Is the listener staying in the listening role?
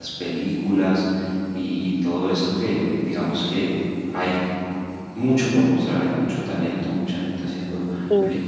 Yes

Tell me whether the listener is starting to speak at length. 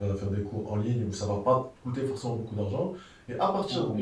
No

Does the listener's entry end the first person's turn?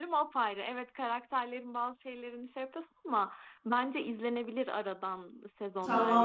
Yes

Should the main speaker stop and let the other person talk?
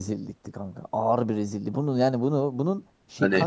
No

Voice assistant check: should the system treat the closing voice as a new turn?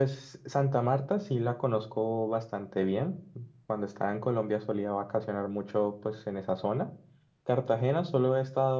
No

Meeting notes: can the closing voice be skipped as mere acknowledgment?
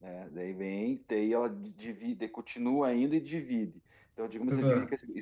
Yes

